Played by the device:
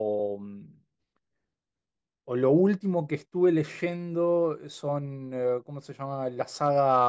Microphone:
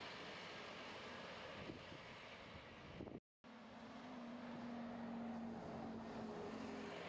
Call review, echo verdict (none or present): none